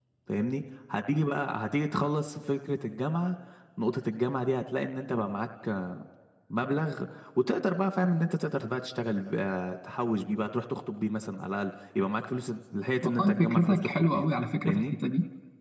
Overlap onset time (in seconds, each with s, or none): 13.0 s